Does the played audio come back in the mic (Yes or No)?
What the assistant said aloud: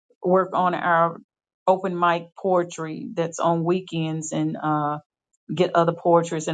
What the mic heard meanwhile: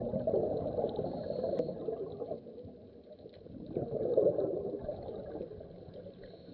No